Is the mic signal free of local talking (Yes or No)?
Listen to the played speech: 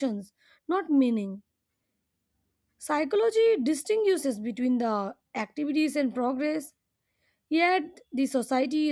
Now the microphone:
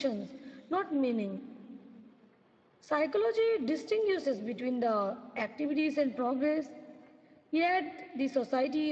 Yes